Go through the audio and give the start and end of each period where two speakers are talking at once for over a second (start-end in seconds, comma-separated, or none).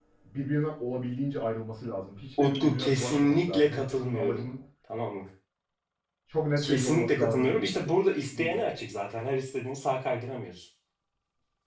2.4-4.5, 6.6-7.9